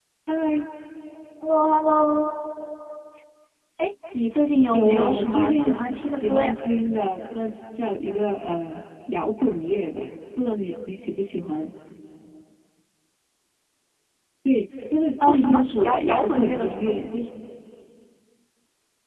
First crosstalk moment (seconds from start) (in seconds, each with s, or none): 4.7 s